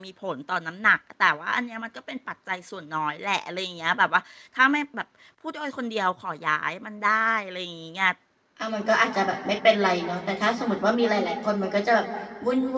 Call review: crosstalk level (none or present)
none